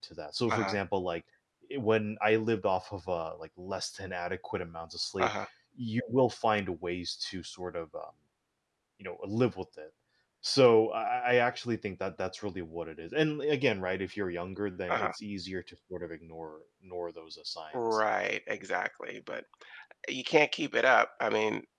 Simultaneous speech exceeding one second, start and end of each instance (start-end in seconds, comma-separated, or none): none